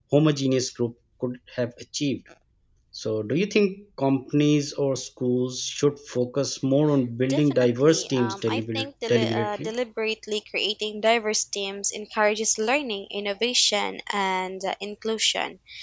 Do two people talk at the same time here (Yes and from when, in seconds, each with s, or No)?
Yes, from 7.3 s